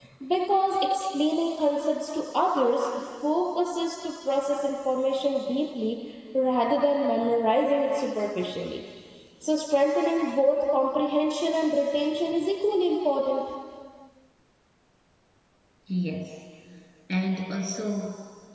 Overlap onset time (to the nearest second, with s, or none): none